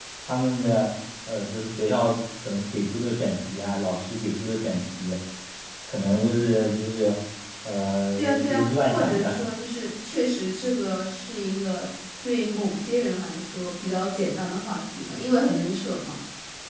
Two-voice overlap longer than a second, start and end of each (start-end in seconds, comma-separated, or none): 8.2-9.4